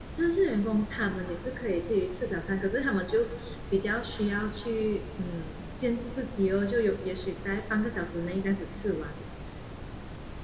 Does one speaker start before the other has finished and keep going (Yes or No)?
No